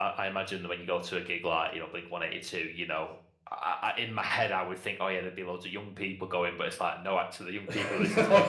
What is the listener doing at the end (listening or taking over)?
listening